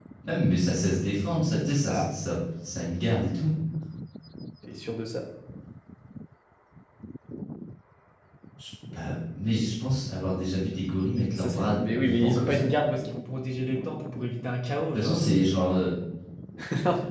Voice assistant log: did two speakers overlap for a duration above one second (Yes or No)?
Yes